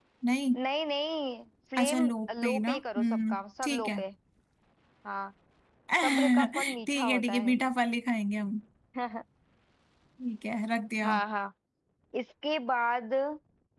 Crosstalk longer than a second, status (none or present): present